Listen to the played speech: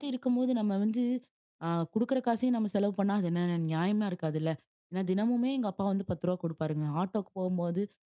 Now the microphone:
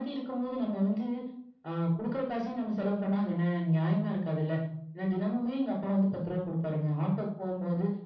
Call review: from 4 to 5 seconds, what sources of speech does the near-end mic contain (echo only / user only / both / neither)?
echo only